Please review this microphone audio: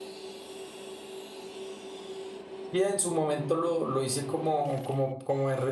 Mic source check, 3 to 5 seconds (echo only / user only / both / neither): user only